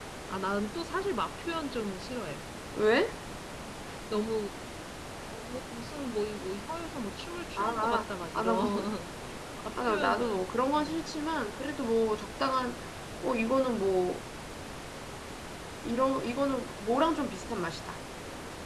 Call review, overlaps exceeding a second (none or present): present